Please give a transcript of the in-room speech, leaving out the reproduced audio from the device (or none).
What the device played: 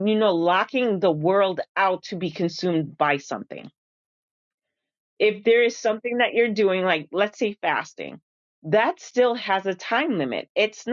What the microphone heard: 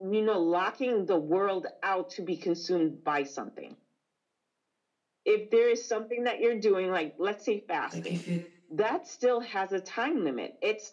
Like if it